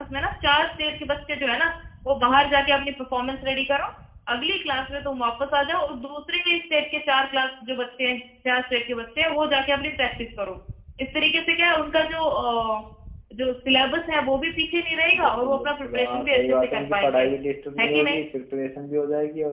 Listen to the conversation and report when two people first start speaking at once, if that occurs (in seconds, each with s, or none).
15.2 s